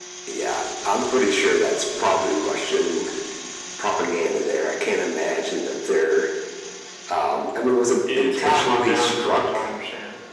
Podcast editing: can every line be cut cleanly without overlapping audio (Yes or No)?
No